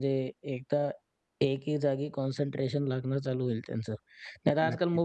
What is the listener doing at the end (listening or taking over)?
listening